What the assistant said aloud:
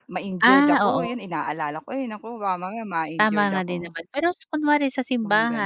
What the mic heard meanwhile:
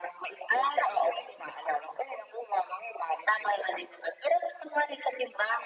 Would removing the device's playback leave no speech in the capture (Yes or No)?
Yes